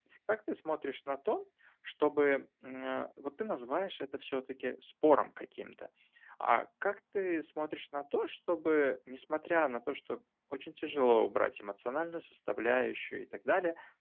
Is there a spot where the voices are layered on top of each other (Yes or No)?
No